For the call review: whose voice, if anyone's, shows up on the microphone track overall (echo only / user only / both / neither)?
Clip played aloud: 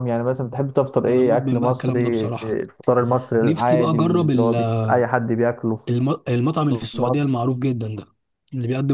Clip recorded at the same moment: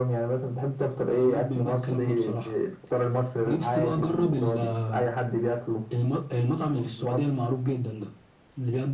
echo only